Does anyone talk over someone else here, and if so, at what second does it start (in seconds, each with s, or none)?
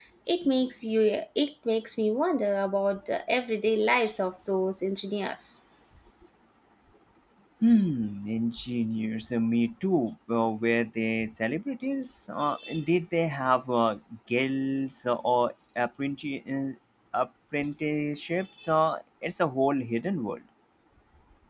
none